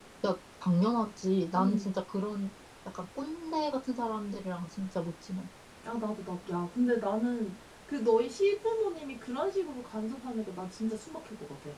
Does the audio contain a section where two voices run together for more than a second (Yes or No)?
No